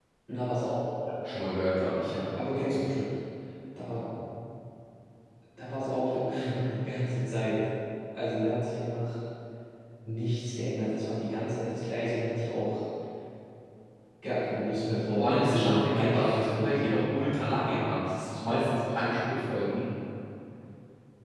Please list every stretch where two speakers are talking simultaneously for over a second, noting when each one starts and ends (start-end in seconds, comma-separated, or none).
15.2-16.9